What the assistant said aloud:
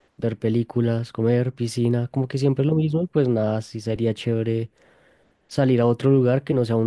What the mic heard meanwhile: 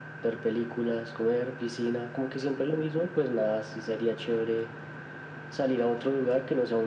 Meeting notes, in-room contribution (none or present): none